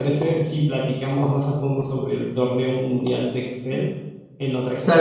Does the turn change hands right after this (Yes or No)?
Yes